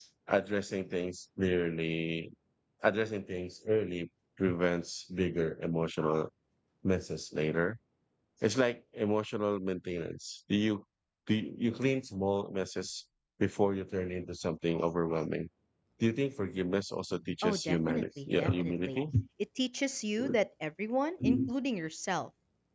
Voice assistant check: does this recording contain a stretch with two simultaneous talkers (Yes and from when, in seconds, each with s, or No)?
Yes, from 17.4 s